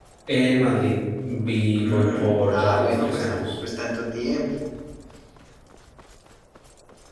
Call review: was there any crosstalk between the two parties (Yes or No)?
Yes